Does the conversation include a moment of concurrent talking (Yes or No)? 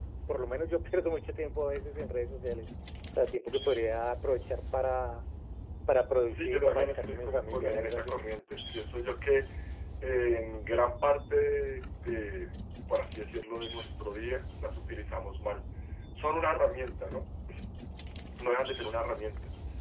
Yes